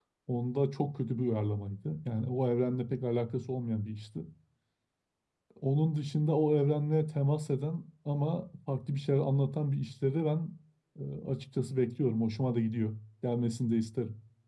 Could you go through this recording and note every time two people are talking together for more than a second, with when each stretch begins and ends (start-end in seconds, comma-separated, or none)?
none